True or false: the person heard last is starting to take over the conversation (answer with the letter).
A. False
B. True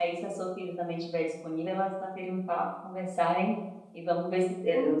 B